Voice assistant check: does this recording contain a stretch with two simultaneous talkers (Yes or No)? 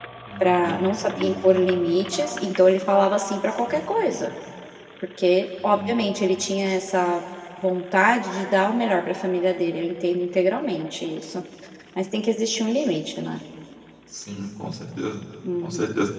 Yes